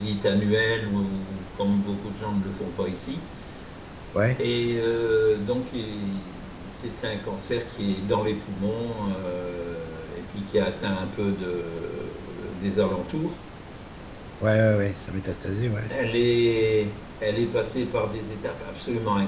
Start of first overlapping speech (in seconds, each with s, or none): none